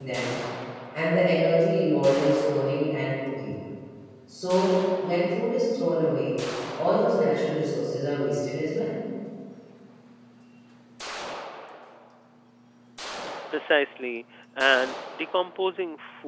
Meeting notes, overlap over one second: none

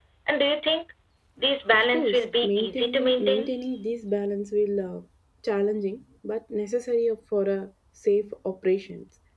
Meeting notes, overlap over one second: present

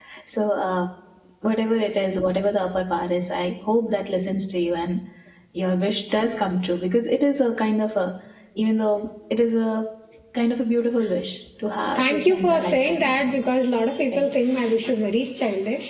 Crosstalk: present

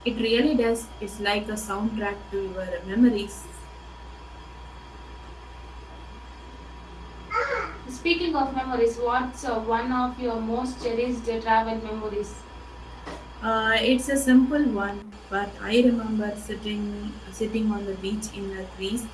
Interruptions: none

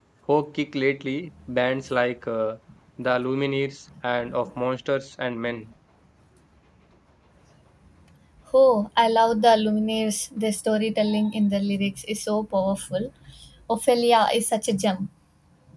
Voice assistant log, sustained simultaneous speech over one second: none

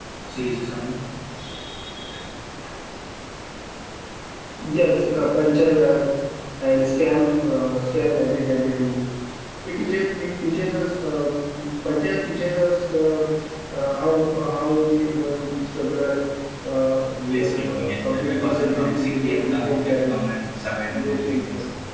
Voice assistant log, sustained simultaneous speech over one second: present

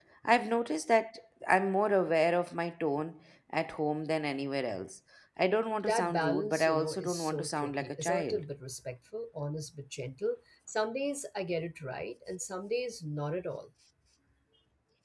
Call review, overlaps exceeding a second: present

